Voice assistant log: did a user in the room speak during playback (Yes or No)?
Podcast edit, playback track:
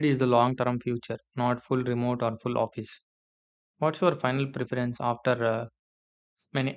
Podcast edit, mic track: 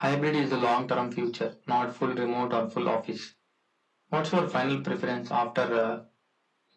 No